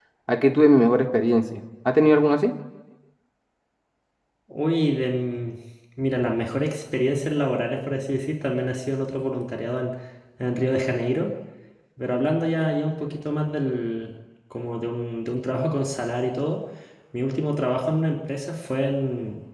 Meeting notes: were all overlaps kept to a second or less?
Yes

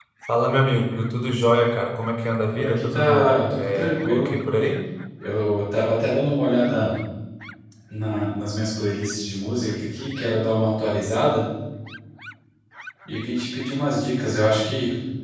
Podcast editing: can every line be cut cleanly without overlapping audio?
No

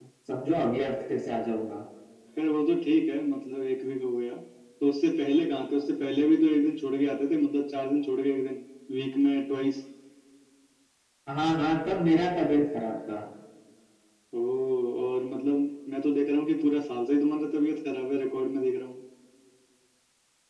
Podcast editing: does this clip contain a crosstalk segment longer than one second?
No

